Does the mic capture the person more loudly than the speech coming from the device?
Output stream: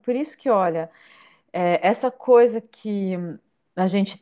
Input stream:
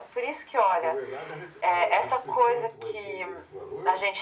No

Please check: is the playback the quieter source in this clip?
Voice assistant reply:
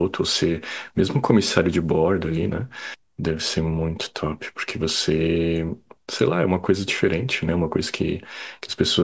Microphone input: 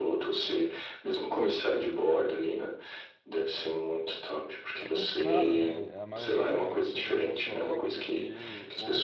No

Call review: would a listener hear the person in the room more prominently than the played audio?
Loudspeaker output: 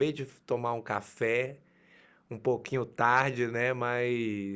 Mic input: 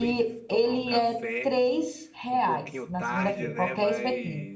Yes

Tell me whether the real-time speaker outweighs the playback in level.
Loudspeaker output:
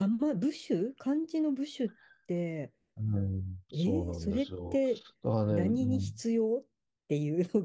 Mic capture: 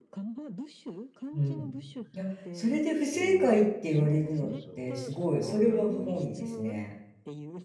Yes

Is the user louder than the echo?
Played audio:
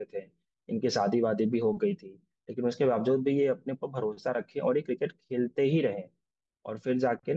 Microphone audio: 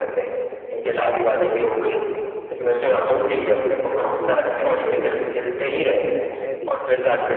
No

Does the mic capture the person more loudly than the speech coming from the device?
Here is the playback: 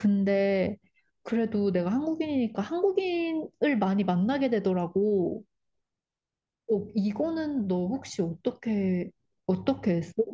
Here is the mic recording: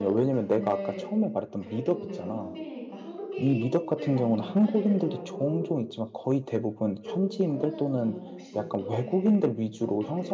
Yes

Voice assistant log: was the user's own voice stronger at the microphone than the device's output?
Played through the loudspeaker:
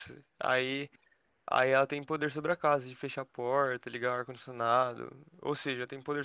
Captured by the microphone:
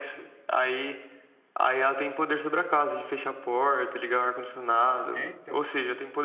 No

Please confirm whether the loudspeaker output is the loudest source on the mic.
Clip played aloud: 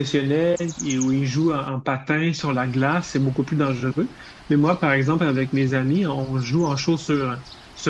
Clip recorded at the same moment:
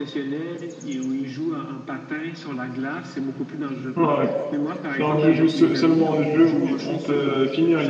No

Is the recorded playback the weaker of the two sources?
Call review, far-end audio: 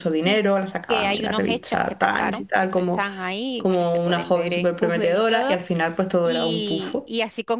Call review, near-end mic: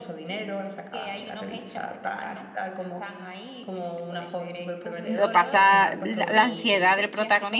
Yes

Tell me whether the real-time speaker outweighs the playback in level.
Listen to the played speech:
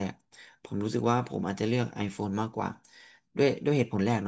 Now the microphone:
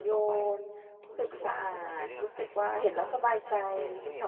Yes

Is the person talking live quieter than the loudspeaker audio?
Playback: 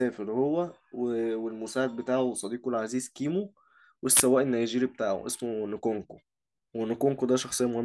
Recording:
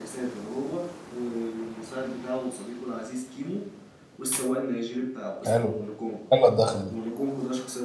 No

